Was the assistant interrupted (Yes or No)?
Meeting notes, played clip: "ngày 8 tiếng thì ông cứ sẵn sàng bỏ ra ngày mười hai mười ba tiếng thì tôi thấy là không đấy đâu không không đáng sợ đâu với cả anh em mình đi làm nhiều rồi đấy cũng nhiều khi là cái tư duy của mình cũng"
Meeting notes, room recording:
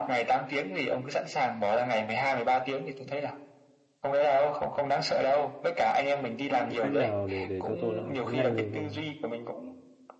Yes